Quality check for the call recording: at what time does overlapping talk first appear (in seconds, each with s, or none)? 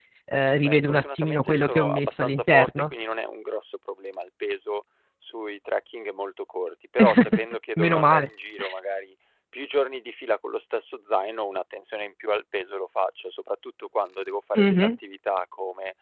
0.6 s